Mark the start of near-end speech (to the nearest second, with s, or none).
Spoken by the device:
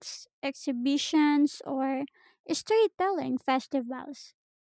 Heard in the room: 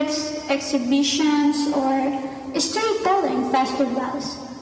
none